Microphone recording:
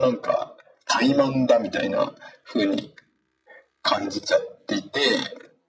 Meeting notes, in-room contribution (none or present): none